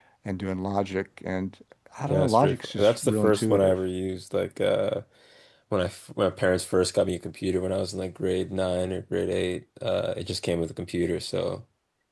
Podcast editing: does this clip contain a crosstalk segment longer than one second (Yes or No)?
Yes